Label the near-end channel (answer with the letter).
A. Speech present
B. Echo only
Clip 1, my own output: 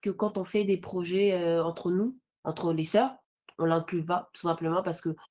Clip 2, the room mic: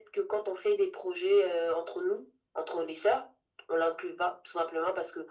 B